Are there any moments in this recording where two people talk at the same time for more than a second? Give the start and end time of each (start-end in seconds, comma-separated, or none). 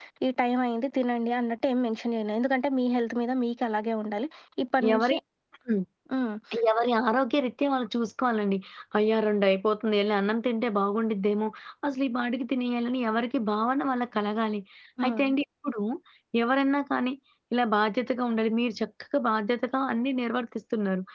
none